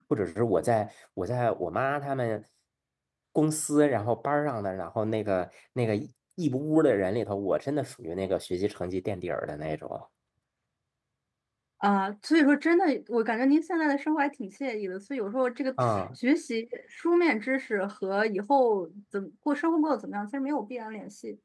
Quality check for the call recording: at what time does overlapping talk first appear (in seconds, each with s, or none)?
none